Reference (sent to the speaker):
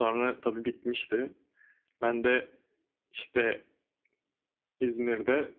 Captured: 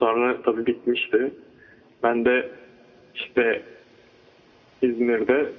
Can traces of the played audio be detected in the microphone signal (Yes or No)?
Yes